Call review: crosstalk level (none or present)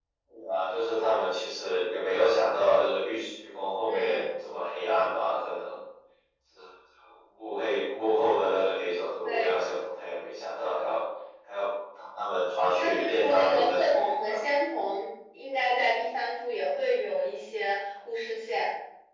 present